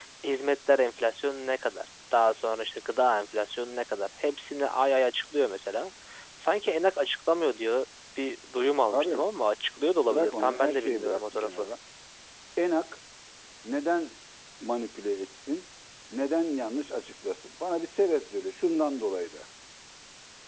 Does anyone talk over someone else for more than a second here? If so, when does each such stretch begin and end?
10.1-11.7

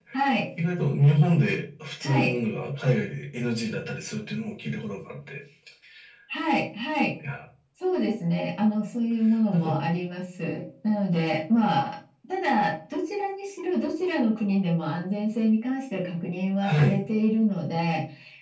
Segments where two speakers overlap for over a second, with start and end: none

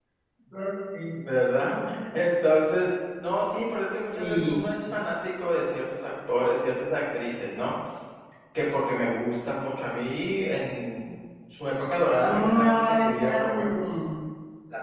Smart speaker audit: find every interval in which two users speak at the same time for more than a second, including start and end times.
12.2-13.6

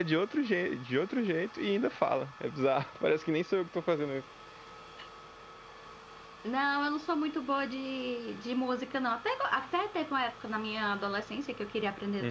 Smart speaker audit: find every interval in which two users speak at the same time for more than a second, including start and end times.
none

